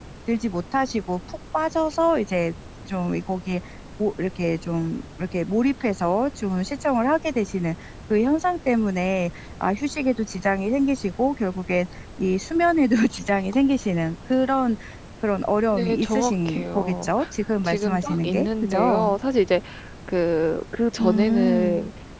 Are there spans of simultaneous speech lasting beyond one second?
Yes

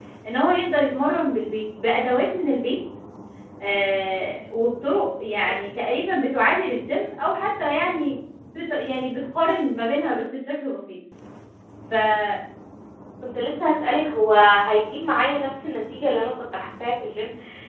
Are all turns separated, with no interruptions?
Yes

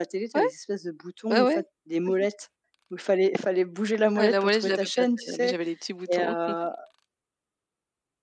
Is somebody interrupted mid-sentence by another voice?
Yes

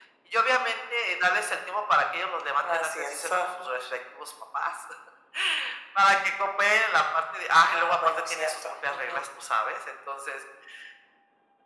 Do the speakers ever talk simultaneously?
Yes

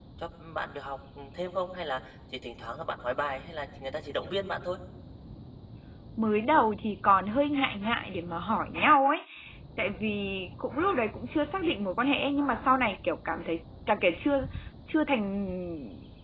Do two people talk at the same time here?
No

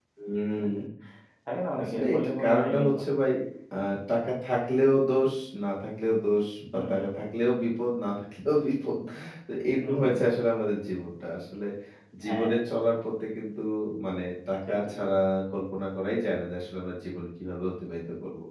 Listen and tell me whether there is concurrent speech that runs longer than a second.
Yes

